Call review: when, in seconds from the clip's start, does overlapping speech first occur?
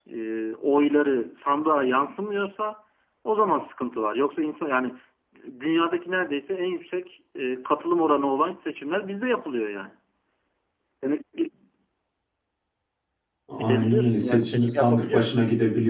14 s

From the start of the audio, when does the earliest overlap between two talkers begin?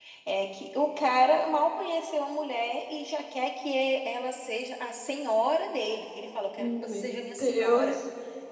7 s

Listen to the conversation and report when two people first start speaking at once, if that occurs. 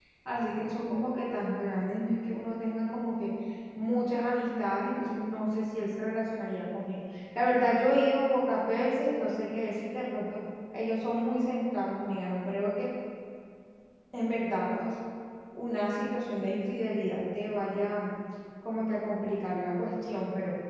none

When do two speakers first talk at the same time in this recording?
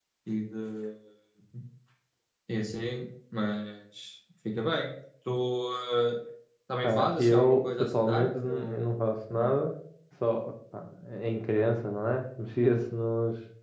7 s

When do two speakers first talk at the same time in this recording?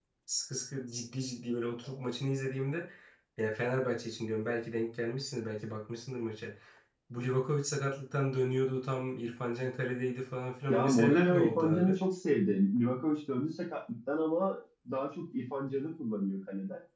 11 s

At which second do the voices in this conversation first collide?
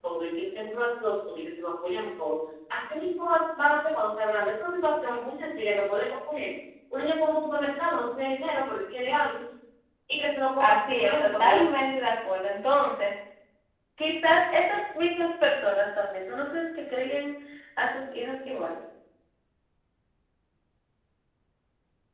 11 s

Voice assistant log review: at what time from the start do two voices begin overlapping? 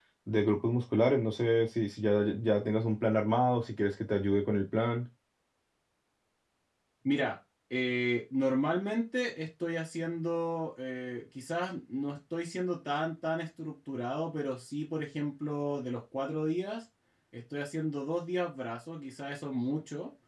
none

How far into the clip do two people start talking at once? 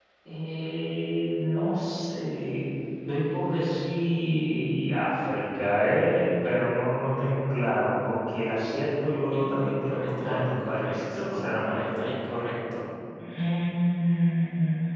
9 s

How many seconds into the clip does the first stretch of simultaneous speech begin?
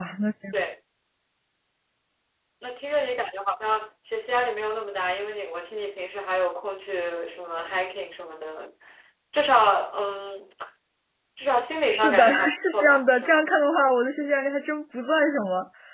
12 s

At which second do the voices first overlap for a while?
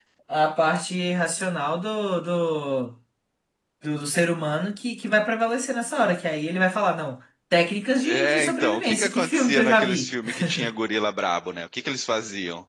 8 s

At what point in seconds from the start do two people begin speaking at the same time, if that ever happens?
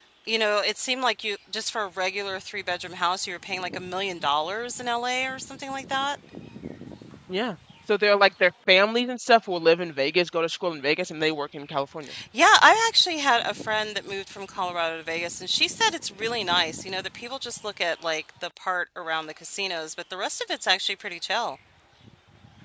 none

